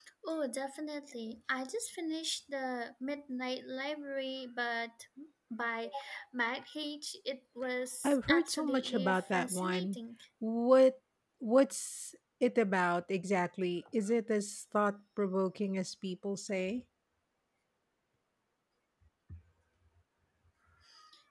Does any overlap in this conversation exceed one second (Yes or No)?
Yes